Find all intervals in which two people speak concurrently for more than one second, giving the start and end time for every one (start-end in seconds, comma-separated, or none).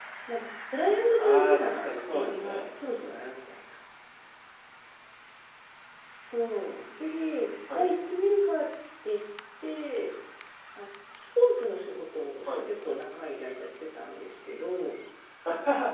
1.2-2.6